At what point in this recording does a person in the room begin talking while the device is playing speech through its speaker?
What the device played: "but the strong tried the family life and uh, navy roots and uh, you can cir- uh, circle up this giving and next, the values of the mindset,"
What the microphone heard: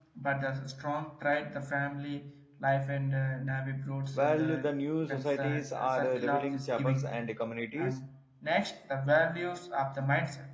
4.1 s

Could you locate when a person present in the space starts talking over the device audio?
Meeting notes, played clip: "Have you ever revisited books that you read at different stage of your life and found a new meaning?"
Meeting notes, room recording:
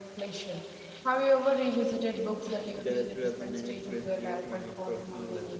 2.8 s

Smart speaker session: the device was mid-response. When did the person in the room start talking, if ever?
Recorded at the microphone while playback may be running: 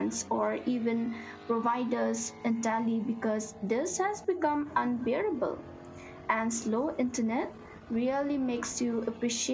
none

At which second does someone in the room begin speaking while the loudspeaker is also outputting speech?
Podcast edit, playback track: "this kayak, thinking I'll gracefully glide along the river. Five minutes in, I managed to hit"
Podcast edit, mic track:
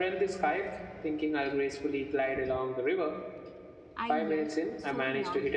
4.0 s

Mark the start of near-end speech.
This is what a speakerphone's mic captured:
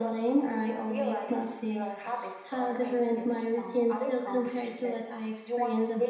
none

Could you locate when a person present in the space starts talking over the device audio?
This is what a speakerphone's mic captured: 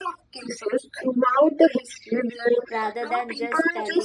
2.7 s

